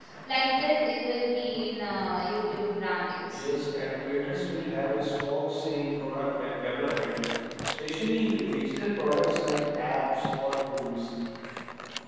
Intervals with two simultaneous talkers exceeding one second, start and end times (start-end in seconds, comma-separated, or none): none